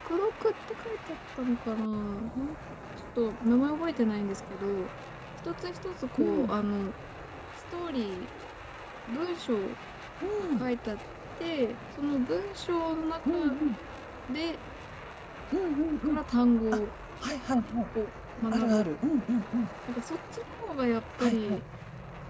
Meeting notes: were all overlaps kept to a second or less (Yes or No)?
Yes